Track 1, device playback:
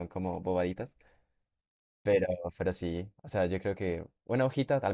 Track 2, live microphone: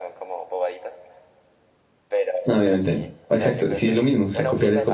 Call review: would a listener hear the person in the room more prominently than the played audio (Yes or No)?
Yes